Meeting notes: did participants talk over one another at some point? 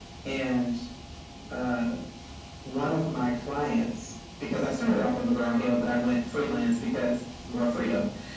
No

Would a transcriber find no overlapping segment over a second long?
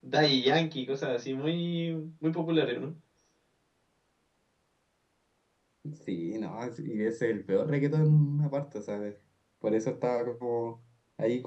Yes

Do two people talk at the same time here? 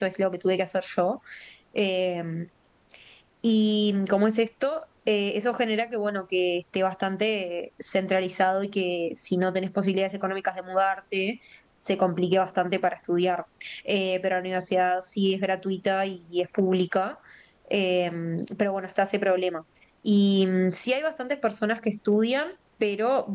No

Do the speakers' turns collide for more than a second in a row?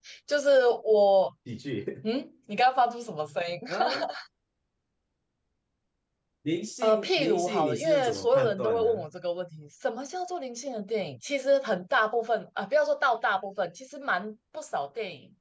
Yes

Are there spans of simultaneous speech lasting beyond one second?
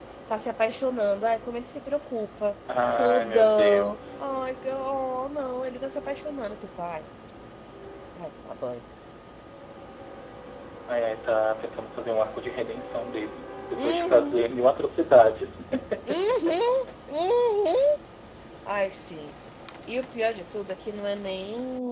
Yes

